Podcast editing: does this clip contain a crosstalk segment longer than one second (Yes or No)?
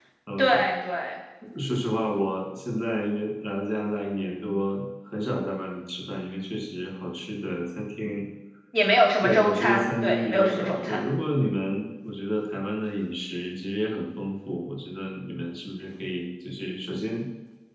Yes